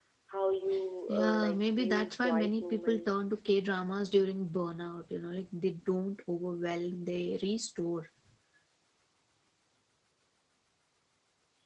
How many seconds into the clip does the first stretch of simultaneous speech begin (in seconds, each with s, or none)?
1.1 s